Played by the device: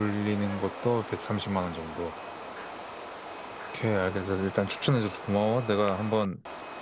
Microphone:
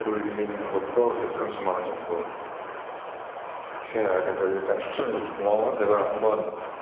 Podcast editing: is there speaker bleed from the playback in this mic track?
Yes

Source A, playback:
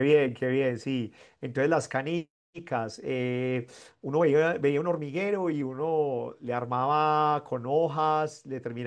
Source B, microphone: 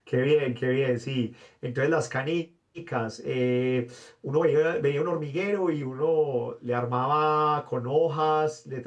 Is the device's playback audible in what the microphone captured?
Yes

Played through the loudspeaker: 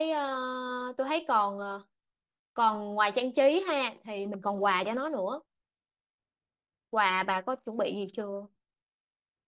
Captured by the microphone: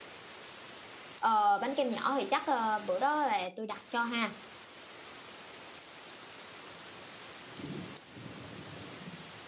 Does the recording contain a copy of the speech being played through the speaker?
No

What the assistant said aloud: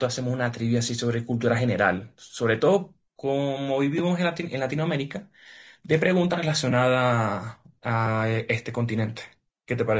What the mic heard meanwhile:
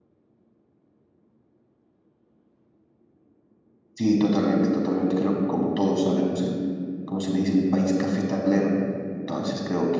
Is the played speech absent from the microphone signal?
Yes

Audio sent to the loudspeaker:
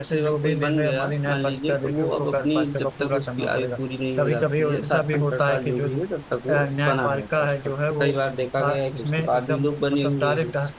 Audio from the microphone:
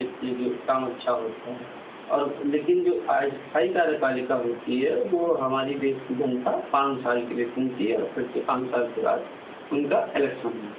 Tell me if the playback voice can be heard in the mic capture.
No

